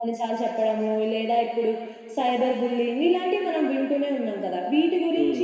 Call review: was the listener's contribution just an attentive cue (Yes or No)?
Yes